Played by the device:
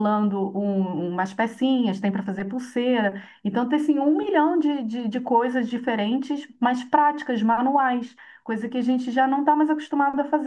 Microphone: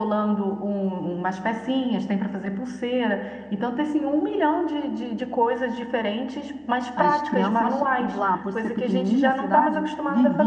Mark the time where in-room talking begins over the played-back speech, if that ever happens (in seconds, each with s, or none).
6.9 s